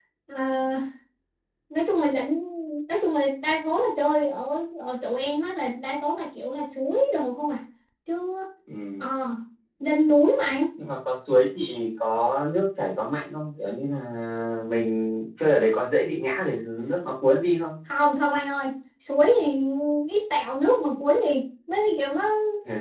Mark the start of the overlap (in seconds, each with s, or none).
none